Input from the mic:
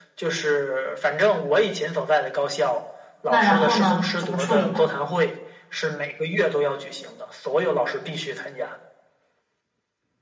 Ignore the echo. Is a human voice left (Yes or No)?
Yes